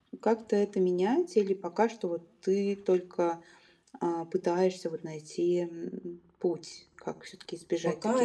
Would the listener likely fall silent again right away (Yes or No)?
No